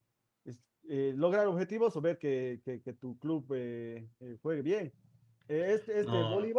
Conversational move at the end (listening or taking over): listening